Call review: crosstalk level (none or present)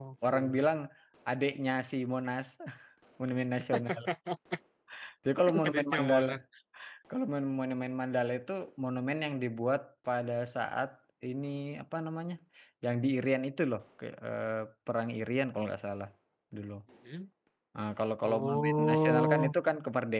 present